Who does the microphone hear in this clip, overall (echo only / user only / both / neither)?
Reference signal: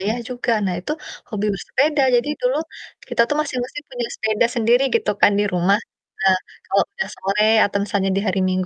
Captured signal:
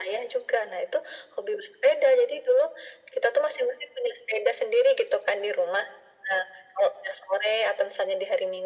echo only